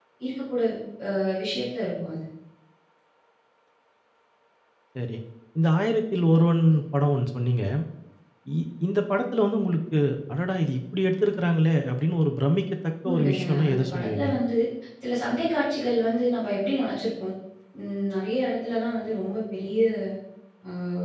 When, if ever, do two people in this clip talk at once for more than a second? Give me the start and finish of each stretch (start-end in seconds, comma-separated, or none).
13.0-14.3